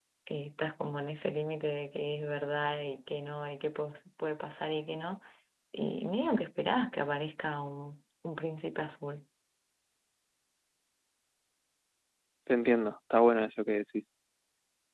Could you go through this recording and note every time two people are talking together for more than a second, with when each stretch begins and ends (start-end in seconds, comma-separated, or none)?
none